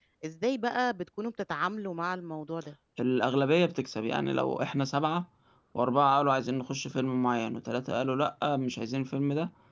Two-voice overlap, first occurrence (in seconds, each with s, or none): none